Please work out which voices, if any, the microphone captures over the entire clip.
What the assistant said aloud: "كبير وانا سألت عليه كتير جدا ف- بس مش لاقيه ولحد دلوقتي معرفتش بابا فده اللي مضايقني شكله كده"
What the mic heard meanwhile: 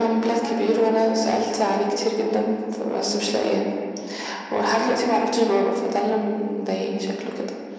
both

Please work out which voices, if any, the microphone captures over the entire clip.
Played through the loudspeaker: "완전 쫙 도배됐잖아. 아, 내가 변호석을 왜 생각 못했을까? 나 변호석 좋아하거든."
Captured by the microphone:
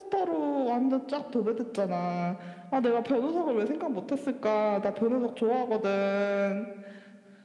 echo only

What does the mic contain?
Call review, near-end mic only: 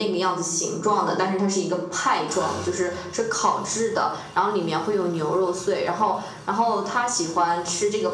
echo only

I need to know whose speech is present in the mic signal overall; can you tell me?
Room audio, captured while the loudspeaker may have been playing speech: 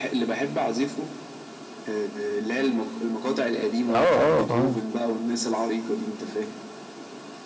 both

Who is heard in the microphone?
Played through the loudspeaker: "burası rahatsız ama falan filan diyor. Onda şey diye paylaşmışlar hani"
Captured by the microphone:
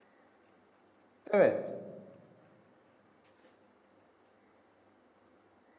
user only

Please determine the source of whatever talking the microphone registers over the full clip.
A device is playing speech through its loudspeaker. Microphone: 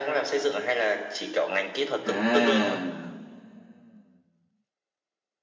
both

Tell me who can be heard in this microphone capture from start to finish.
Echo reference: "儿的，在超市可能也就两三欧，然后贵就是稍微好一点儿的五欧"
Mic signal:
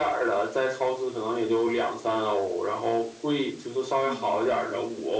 both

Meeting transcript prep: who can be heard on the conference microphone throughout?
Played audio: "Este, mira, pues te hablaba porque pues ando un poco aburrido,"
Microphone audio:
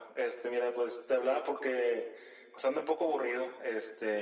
echo only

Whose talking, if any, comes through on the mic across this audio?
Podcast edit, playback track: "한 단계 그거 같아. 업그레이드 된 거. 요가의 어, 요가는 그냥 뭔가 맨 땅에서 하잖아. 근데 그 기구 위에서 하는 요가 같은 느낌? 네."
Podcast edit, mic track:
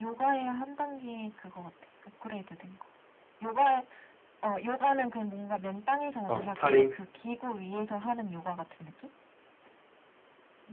both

